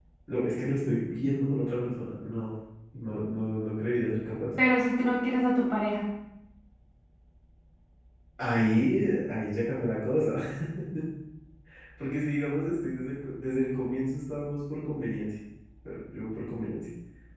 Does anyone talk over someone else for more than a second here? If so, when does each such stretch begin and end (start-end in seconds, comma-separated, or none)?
none